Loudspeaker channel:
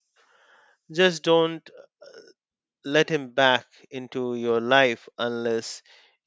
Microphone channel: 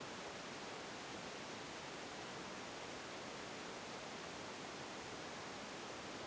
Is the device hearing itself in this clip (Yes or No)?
No